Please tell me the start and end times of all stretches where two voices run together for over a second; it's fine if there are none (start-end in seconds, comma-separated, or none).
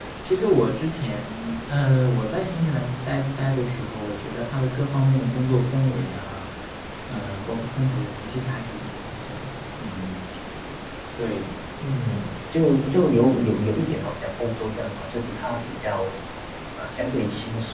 none